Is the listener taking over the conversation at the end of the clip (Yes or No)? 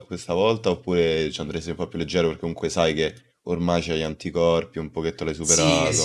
Yes